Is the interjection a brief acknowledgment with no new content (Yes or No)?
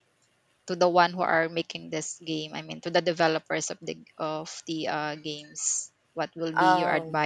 Yes